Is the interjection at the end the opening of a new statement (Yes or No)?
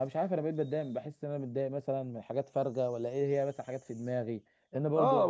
Yes